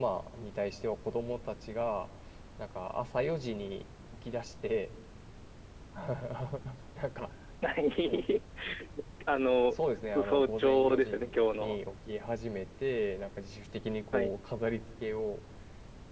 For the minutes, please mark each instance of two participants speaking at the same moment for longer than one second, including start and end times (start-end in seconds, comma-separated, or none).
9.7-11.1